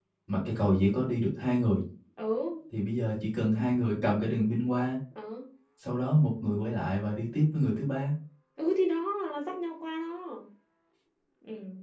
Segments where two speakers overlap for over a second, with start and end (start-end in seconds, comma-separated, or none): none